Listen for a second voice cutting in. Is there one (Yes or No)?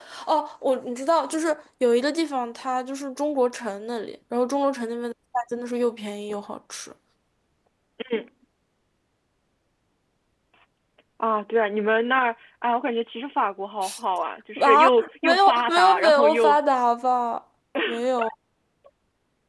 Yes